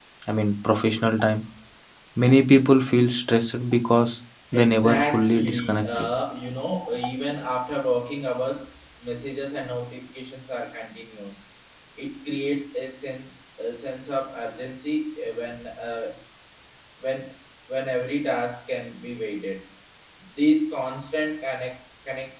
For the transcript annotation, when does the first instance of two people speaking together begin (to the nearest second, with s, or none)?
5 s